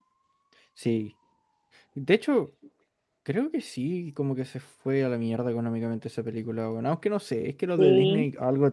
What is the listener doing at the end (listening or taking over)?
listening